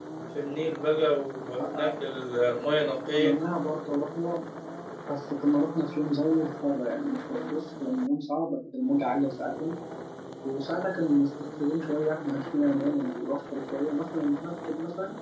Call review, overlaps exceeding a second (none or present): none